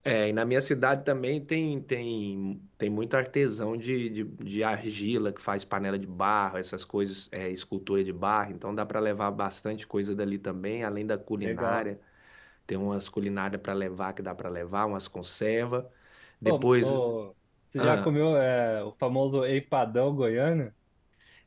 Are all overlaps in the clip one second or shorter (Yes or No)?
Yes